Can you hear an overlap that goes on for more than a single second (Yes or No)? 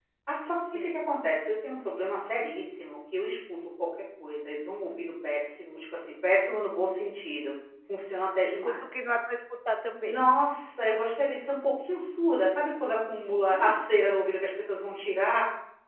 No